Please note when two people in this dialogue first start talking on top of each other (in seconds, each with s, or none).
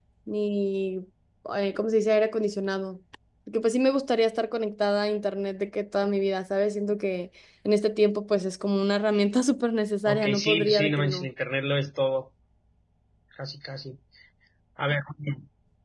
10.0 s